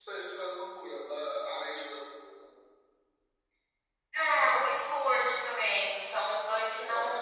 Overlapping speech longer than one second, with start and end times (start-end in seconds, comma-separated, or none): none